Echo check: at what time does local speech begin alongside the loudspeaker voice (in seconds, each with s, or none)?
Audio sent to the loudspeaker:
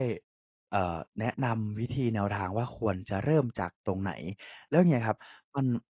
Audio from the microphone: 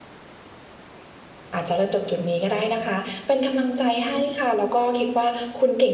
1.5 s